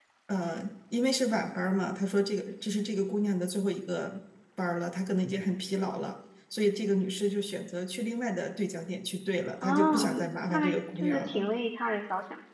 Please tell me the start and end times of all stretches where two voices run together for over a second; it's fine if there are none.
9.6-11.4

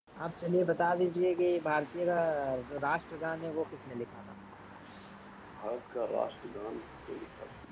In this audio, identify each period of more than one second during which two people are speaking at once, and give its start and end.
none

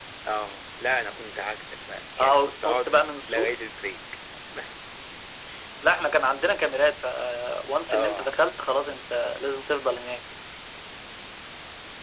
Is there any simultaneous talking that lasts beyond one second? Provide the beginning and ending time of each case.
2.2-3.5

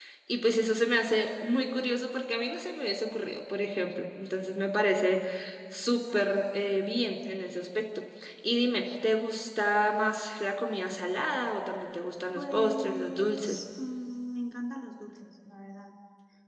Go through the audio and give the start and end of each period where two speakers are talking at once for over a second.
12.3-13.6

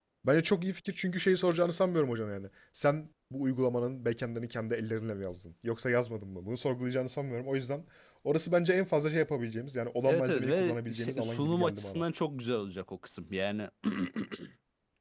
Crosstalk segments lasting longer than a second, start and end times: 10.1-12.0

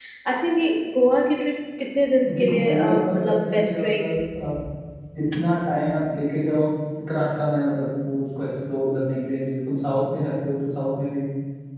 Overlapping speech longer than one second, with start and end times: 2.4-4.1

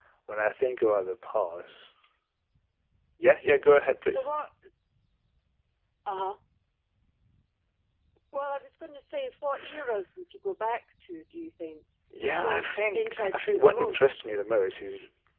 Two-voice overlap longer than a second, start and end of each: 12.2-14.1

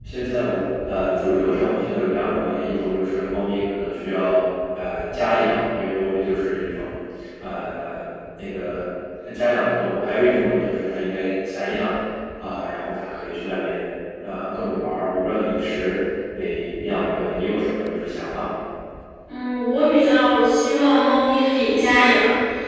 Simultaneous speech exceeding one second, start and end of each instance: none

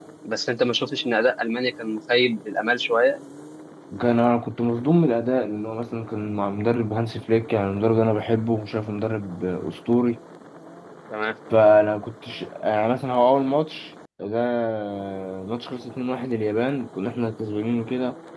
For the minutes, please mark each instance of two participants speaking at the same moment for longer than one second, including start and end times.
none

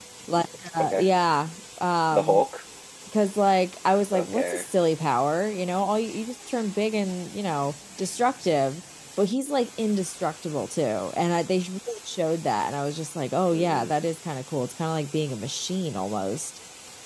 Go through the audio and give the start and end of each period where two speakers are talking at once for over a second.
none

